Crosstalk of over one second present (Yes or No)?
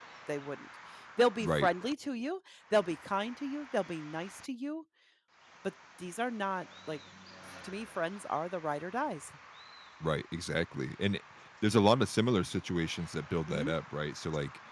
No